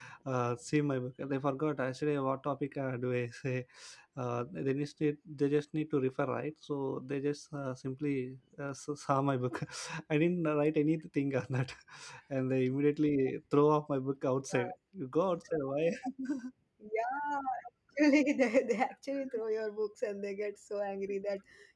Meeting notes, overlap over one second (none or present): none